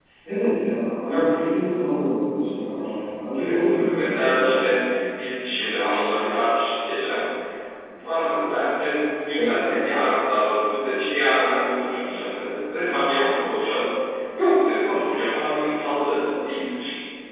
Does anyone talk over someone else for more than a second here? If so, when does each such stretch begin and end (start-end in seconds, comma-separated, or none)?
3.4-4.8